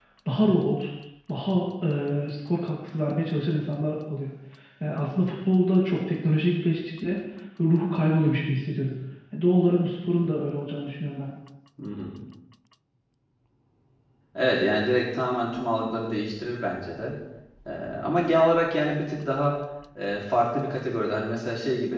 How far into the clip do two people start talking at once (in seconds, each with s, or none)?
none